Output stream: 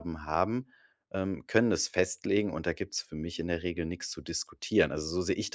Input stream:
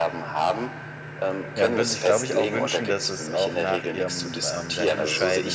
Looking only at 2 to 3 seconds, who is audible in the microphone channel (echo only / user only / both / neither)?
both